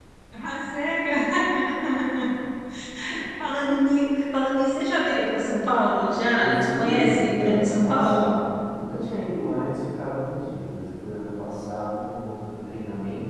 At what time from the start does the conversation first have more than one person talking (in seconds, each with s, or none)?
6.4 s